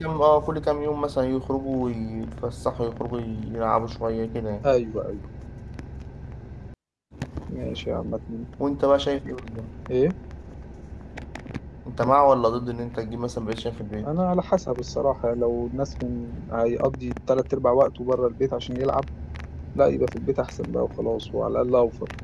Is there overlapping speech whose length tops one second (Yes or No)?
No